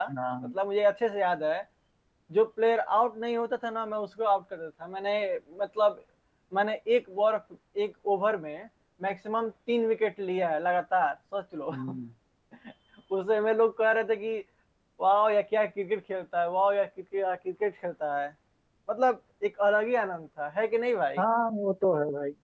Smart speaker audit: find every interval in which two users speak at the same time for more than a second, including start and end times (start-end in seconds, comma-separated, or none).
none